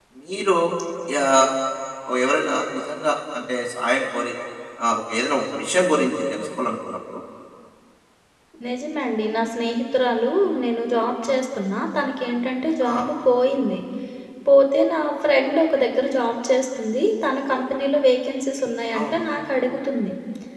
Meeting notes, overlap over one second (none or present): none